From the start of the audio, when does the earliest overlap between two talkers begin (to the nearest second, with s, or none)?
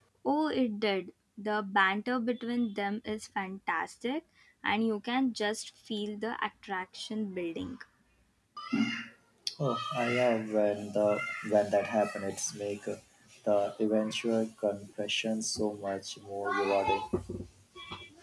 none